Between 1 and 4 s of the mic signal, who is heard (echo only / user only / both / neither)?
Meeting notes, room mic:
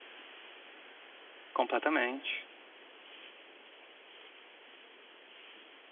user only